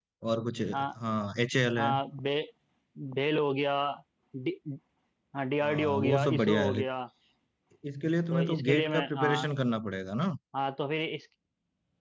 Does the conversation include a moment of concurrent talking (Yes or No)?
Yes